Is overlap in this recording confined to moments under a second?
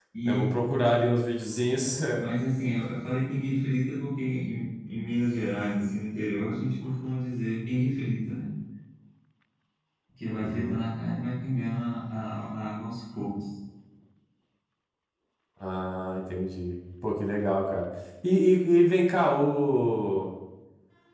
Yes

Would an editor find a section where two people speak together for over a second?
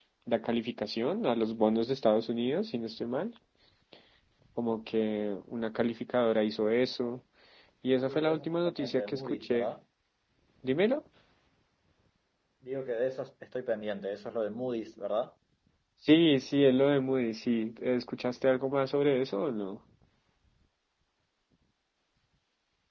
Yes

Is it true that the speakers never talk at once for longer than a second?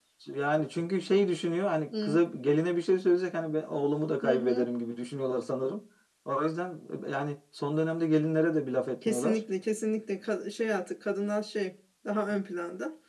Yes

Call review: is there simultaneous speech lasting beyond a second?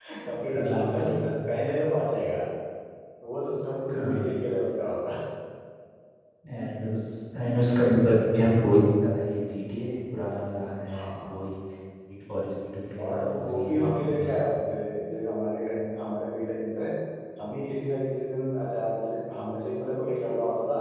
Yes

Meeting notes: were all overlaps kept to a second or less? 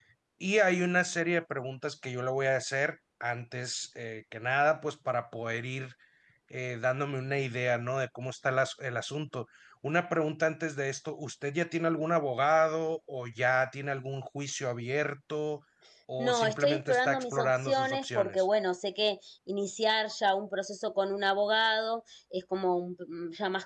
No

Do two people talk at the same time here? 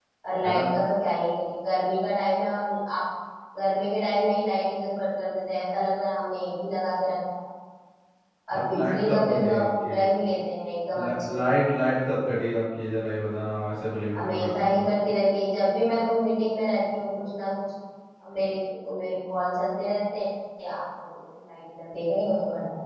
Yes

